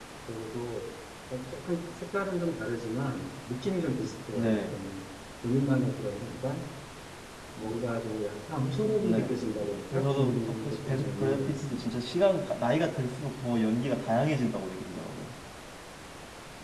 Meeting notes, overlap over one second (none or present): present